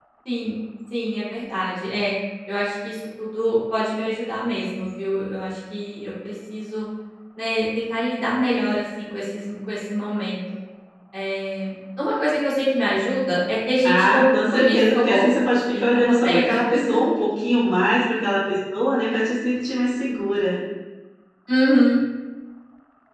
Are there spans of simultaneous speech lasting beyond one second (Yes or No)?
Yes